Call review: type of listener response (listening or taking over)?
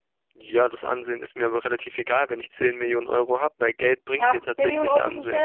taking over